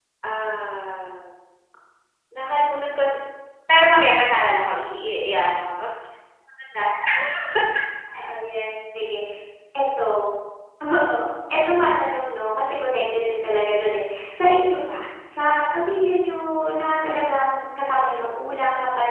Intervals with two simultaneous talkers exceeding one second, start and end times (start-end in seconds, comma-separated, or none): none